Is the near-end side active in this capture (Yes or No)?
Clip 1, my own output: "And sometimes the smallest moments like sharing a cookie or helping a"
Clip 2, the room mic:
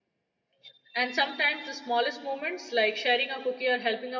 No